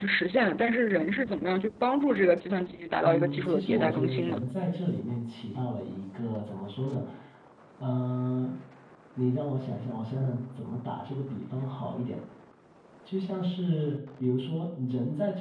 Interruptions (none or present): present